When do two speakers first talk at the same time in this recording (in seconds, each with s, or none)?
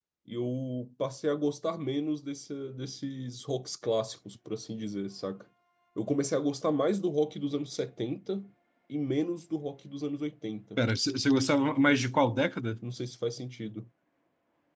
none